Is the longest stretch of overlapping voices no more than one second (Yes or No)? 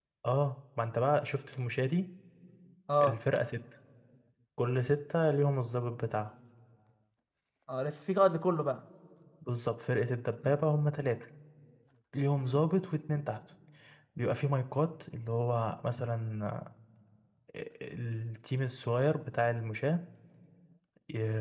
Yes